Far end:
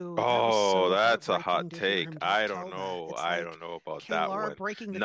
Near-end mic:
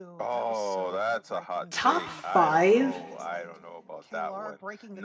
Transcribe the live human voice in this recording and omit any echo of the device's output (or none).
top five